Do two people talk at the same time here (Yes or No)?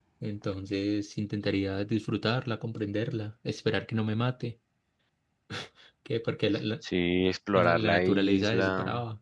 Yes